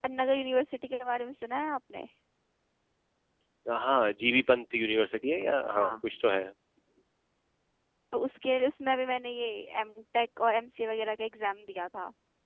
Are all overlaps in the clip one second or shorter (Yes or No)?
Yes